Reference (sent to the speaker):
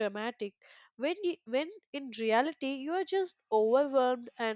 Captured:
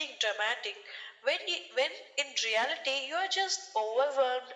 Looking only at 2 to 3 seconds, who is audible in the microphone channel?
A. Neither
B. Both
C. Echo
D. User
C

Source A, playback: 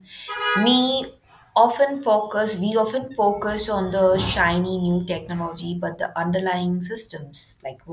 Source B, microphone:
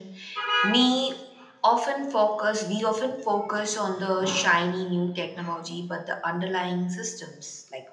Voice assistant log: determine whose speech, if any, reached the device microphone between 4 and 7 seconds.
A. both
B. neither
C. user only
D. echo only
D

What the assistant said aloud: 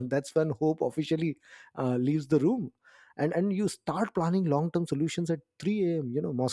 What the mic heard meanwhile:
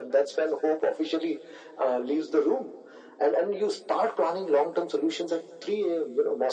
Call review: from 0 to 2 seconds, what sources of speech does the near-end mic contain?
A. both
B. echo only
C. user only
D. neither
B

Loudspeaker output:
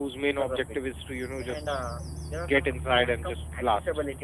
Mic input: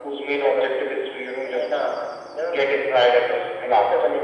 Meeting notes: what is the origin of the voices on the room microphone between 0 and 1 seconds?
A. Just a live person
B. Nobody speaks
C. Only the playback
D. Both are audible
C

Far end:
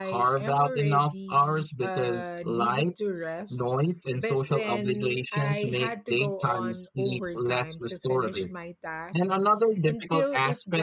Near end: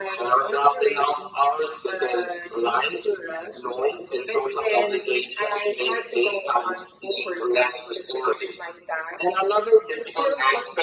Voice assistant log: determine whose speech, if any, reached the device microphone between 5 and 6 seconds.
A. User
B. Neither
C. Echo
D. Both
C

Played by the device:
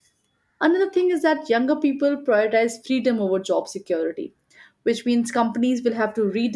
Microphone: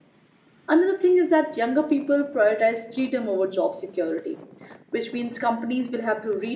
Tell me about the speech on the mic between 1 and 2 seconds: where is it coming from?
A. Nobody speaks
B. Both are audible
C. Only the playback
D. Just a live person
C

